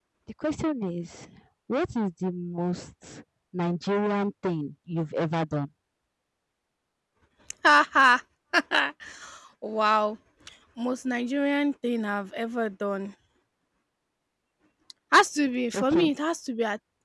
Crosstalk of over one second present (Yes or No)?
No